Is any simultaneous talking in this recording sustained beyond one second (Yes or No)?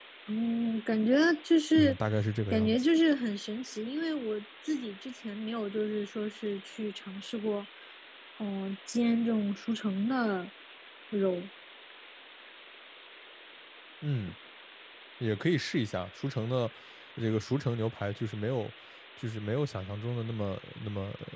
No